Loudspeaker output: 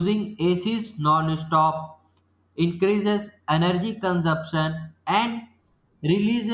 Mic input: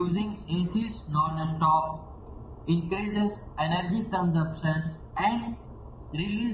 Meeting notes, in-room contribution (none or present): none